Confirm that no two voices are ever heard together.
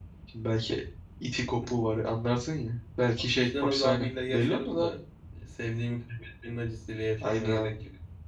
No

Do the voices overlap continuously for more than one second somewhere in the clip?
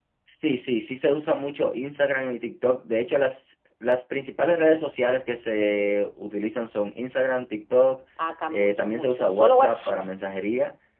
Yes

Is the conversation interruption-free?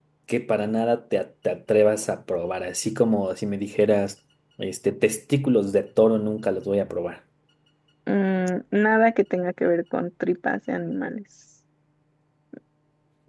Yes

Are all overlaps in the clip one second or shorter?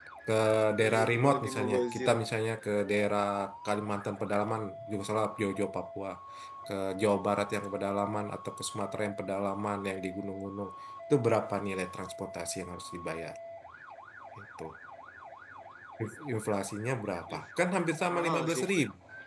No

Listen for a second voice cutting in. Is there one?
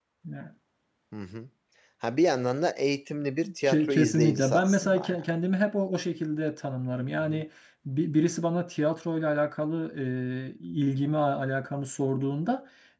Yes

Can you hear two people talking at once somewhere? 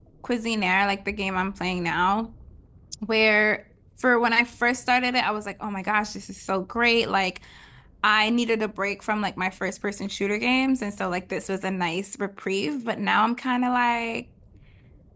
No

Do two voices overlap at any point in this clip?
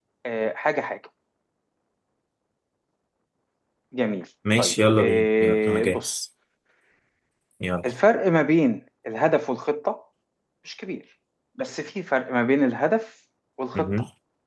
Yes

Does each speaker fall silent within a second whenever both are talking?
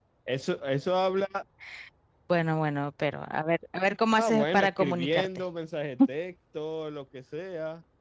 No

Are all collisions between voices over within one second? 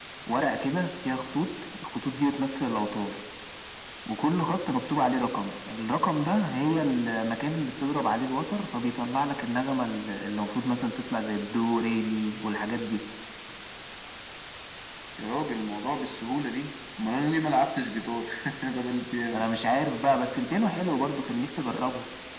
Yes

